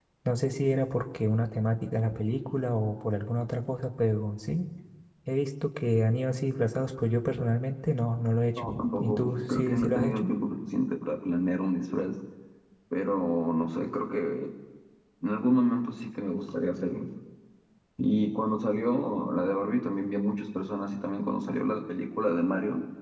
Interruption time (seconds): 8.6 s

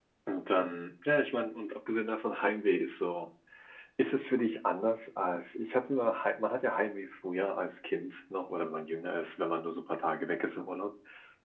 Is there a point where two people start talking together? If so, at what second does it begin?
none

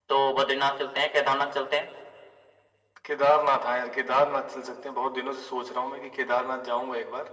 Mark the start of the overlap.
none

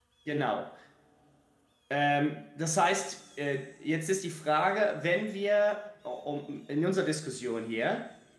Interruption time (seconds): none

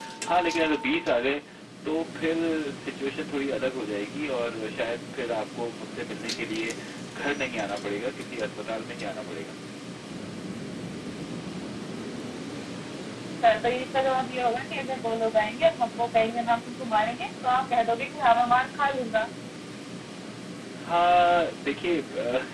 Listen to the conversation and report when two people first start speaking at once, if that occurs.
none

